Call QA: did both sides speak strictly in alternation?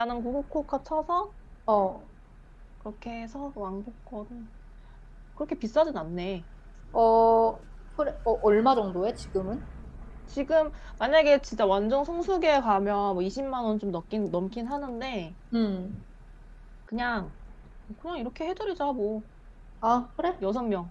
Yes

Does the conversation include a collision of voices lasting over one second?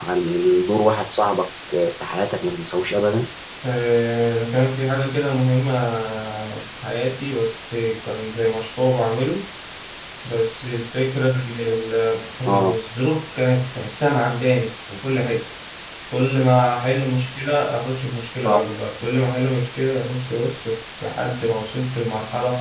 No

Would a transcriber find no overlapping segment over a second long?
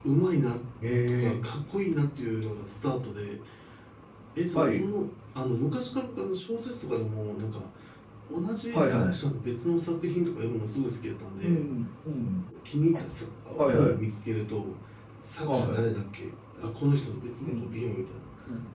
Yes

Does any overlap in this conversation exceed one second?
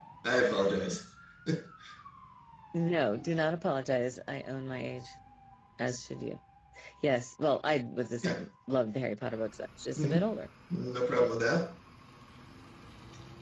No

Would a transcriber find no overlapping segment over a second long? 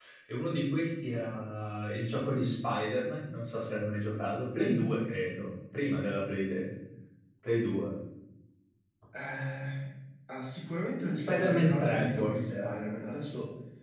No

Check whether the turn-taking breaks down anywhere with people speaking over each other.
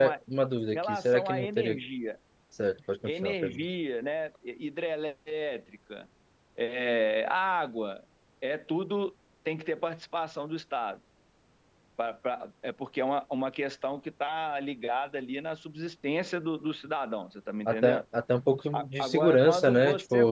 Yes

